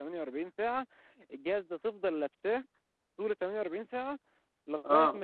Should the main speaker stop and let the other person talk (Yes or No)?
No